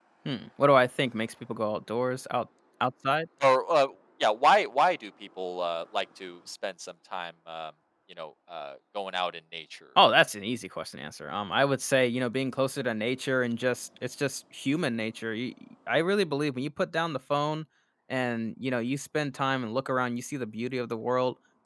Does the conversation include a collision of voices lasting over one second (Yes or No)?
No